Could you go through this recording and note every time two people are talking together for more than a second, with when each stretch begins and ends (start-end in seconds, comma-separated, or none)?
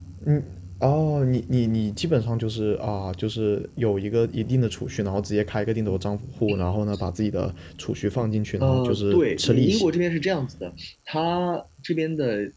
8.6-9.9